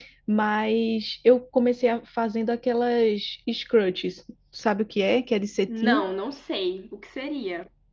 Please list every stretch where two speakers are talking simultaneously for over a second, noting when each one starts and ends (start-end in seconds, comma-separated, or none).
none